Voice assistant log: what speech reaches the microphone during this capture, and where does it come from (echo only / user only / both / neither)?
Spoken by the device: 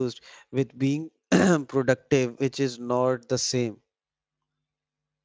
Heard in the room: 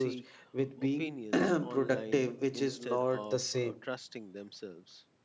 both